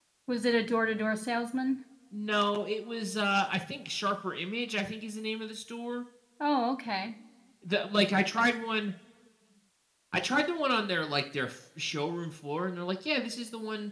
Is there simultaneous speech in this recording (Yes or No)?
No